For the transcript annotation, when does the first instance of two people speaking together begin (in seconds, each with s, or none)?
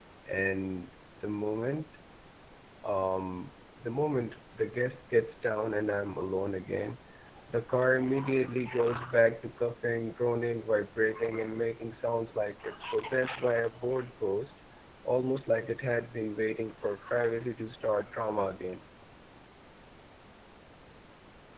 none